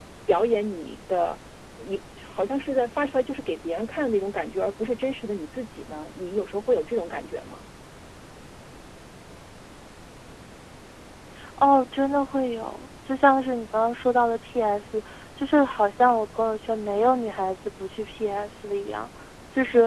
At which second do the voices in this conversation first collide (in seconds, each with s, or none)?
none